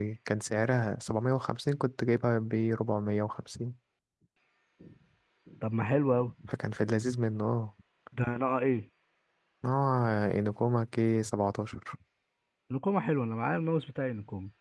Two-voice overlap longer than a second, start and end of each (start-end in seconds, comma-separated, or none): none